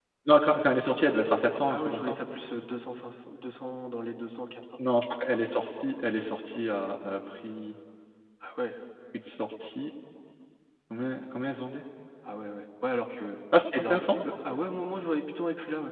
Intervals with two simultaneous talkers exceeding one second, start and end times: none

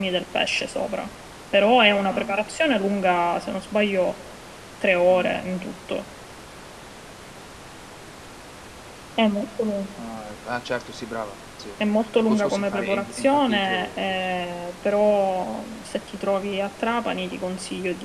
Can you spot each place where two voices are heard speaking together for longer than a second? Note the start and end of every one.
12.2-14.2

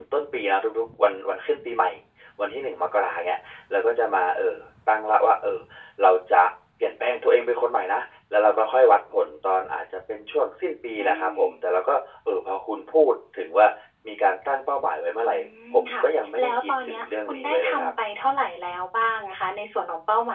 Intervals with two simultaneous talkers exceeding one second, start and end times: 16.4-17.9

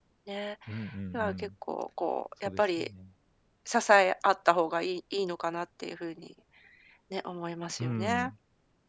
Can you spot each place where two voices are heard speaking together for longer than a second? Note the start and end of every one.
none

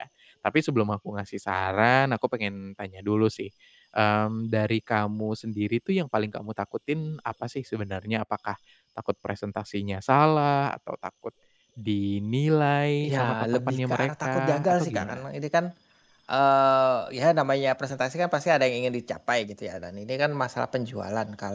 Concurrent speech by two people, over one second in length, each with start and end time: 13.0-15.2

